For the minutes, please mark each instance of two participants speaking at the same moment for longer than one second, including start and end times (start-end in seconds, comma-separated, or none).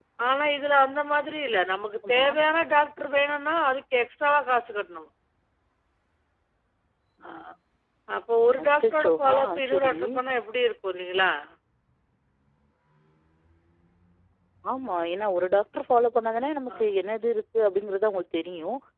8.6-10.0